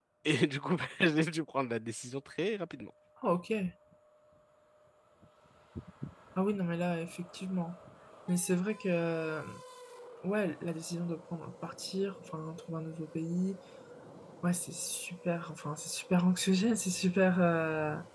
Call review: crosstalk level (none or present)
none